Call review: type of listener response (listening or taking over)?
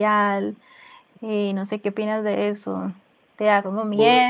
listening